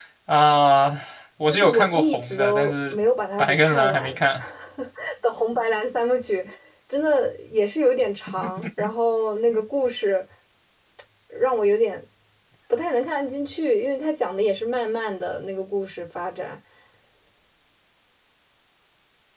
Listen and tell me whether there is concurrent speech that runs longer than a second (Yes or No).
Yes